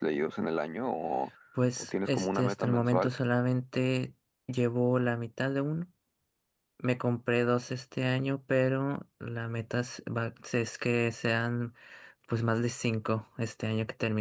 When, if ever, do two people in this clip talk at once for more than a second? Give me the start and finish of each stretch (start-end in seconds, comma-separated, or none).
1.8-3.1